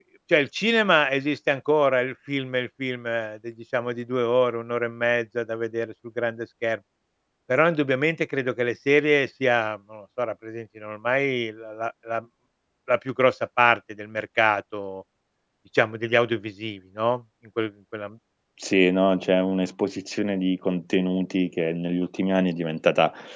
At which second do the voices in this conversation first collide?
none

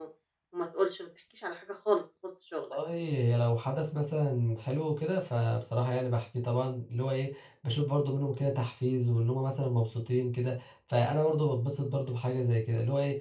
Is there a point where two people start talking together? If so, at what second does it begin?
none

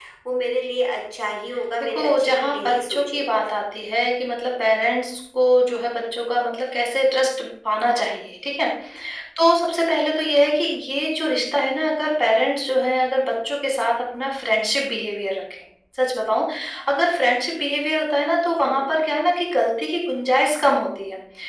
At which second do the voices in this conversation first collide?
1.8 s

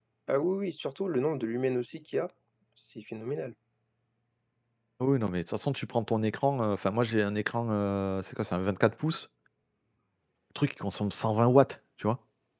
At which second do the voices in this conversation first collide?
none

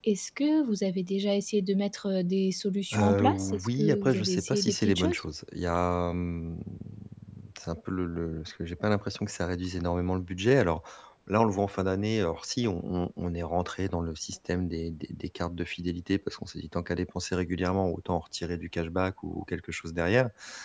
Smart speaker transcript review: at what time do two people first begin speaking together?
2.9 s

